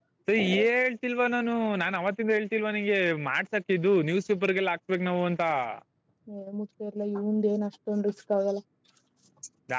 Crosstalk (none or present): none